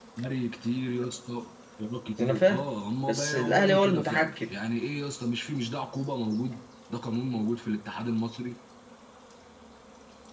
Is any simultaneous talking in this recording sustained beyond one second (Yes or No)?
Yes